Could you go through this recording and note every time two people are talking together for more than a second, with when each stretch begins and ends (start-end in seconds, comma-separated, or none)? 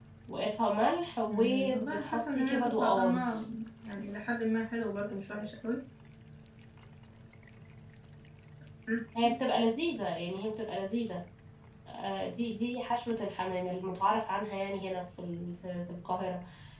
1.3-3.4